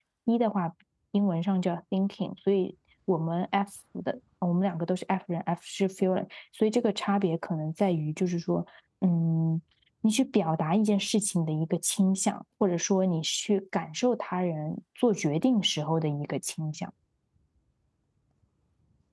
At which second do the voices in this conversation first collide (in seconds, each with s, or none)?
none